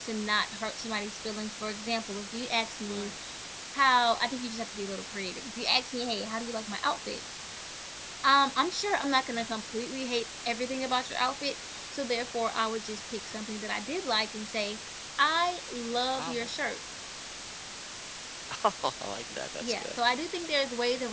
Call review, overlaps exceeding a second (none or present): none